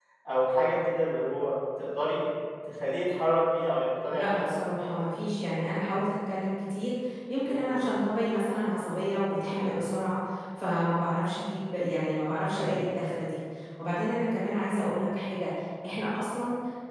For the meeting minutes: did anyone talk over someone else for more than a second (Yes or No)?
No